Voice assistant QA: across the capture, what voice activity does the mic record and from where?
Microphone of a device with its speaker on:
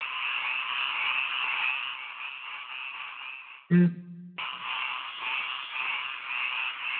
user only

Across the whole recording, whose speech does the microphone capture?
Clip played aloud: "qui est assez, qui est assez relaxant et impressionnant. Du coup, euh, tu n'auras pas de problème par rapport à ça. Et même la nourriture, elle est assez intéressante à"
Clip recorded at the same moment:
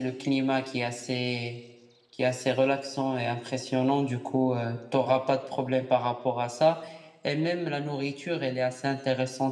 echo only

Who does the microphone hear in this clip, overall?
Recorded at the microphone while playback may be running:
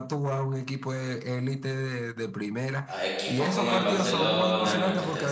both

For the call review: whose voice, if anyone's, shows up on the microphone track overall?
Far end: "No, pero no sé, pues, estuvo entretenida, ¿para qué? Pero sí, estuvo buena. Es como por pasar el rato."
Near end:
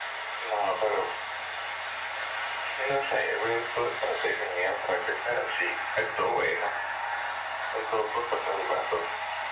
echo only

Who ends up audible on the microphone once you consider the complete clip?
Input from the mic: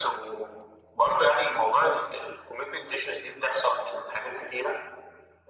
echo only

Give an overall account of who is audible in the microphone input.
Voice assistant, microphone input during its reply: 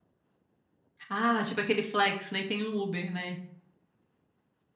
user only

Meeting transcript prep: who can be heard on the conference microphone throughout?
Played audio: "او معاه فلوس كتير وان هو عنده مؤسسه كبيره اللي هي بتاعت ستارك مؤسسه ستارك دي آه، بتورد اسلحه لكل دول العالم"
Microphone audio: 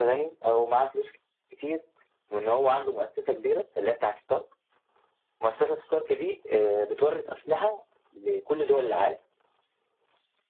echo only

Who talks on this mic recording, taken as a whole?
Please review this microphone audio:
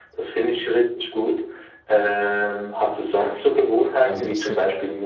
both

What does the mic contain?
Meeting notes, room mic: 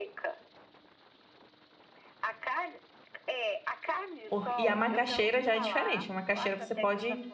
both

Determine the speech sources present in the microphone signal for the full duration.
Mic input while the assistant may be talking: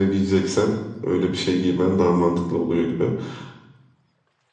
echo only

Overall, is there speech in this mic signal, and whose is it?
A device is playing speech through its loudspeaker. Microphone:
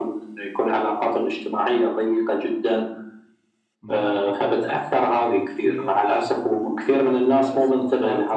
both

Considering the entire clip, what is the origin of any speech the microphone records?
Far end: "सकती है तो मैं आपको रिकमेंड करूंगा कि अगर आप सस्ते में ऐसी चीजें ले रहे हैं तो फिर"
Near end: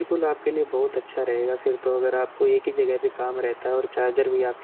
user only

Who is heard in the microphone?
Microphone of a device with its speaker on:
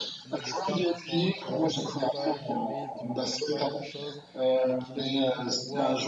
both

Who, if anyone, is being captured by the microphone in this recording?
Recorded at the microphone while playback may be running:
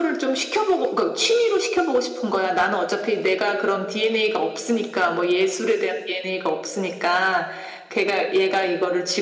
echo only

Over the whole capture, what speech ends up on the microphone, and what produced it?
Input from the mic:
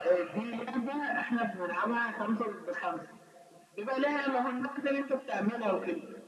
echo only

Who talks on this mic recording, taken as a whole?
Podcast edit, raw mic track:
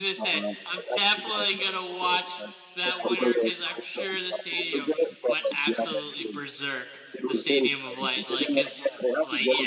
both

